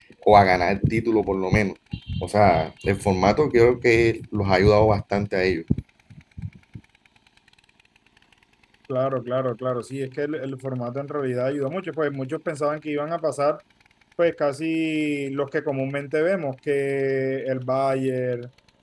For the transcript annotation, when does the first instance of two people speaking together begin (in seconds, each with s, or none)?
none